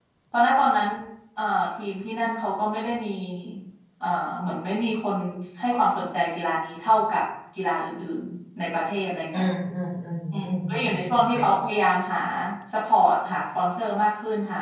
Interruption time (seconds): 10.3 s

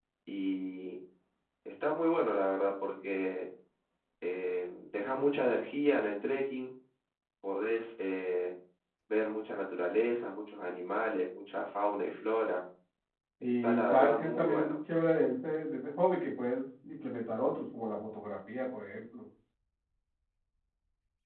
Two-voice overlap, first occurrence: 13.4 s

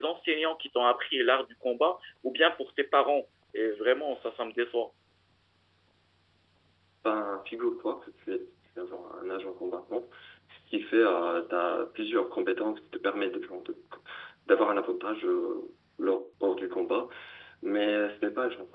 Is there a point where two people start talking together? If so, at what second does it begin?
none

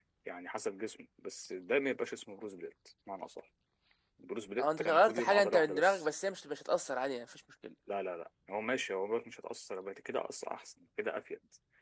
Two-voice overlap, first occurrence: 4.6 s

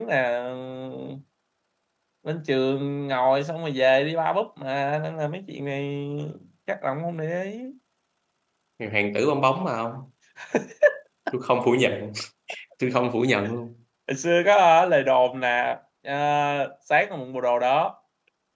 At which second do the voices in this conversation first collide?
none

